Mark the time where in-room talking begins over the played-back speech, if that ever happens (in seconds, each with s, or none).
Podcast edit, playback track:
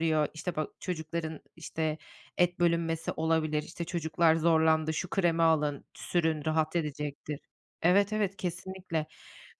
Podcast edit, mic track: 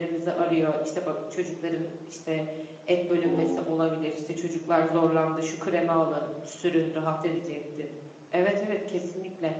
3.2 s